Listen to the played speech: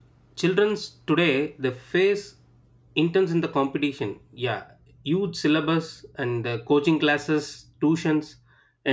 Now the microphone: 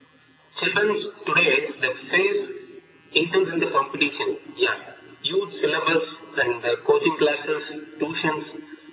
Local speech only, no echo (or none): none